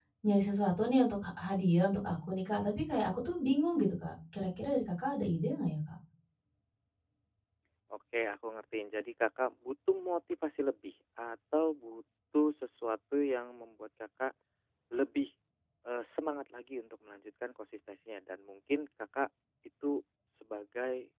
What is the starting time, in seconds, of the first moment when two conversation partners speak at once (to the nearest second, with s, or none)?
none